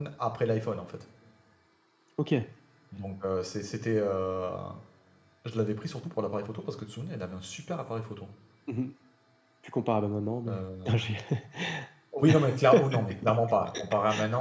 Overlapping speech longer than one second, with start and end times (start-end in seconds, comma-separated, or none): none